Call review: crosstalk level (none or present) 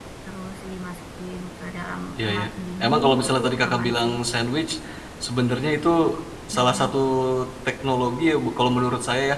present